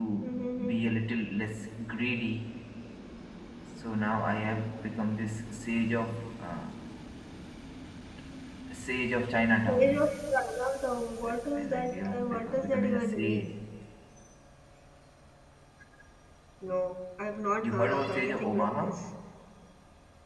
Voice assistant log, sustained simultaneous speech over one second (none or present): present